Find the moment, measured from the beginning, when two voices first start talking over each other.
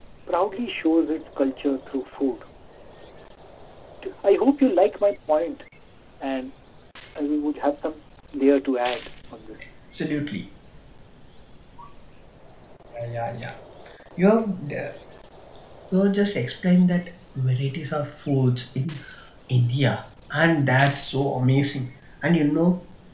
none

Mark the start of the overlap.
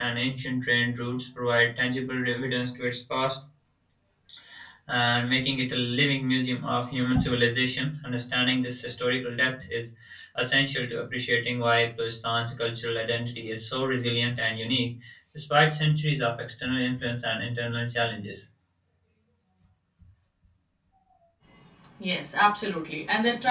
none

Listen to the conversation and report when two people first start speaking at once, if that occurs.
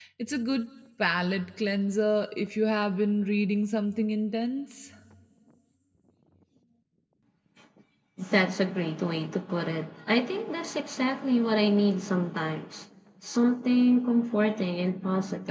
none

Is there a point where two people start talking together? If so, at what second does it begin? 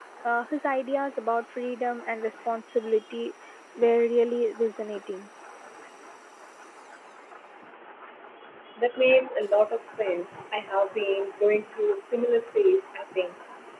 none

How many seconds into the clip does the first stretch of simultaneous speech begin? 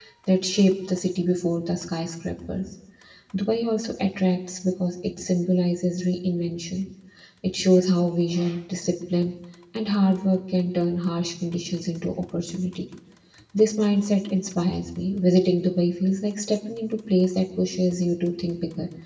none

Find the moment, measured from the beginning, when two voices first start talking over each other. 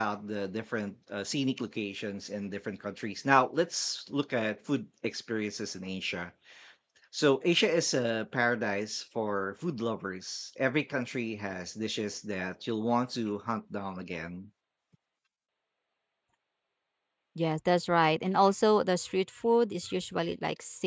none

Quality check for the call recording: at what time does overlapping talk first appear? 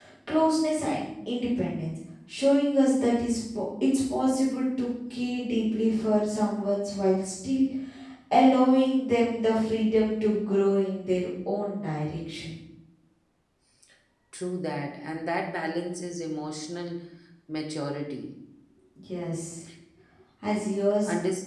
none

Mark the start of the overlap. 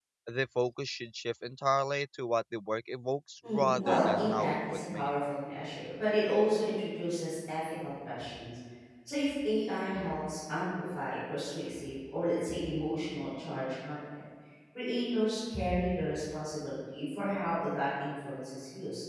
3 s

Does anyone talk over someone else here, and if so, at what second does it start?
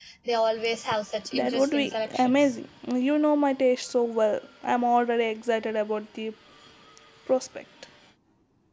1 s

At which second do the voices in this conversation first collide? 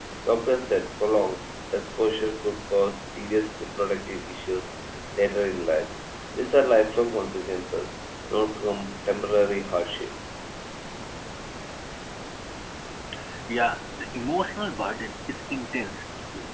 none

